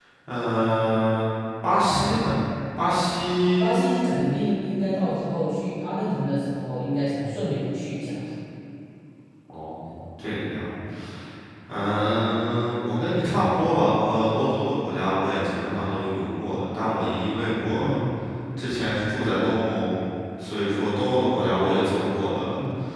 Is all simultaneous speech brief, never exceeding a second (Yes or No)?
Yes